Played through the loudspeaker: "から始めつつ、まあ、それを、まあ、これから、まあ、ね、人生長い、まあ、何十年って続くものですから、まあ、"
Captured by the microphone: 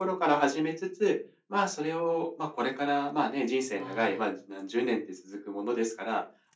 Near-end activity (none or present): present